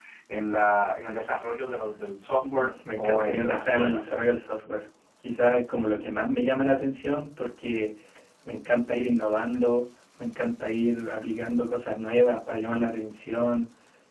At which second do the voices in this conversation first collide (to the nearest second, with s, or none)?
2 s